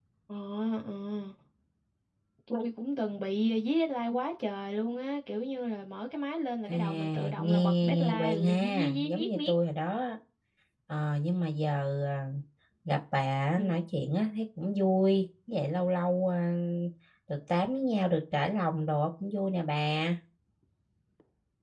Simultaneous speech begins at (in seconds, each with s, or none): 6.7 s